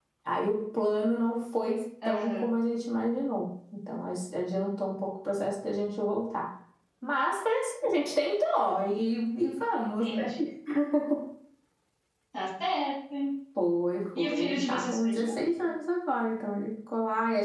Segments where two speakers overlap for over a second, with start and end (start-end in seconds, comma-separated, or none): 14.2-15.7